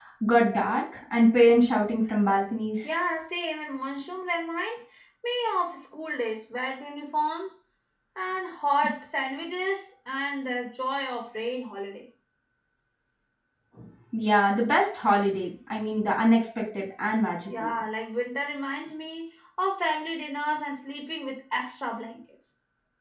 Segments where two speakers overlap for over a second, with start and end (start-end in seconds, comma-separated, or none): none